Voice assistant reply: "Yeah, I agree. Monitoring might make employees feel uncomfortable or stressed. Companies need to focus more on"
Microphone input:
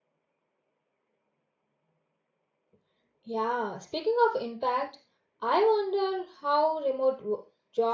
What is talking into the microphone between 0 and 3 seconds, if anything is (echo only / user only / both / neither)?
neither